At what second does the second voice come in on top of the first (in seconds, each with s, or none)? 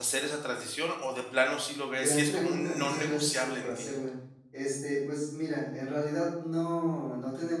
1.7 s